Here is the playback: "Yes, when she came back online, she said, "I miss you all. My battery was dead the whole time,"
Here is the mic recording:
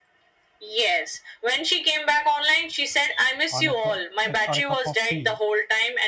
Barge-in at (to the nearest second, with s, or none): 3 s